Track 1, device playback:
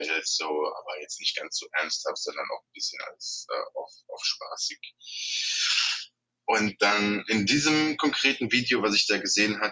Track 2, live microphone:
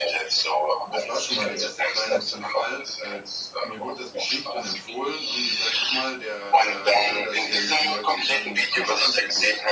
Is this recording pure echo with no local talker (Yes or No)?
No